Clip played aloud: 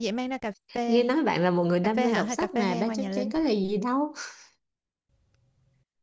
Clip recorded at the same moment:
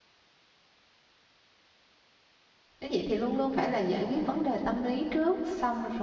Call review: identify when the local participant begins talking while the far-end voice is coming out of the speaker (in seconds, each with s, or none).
2.8 s